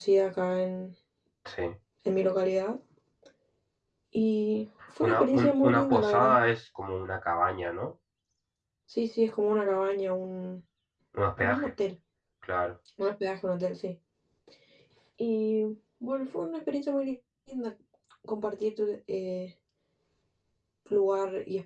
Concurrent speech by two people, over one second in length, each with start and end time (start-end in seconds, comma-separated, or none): 5.0-6.4